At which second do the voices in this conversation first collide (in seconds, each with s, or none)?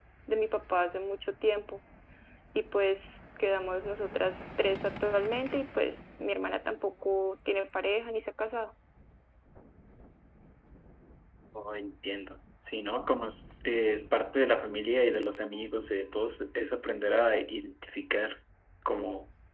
none